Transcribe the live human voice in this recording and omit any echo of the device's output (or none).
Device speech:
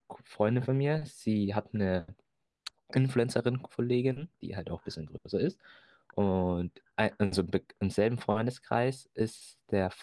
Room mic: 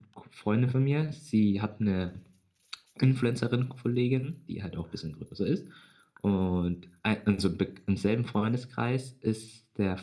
none